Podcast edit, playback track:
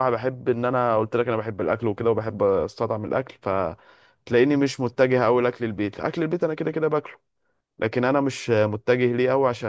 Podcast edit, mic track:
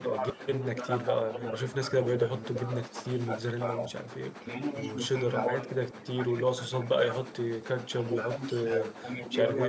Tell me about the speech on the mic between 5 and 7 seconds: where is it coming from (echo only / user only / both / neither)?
both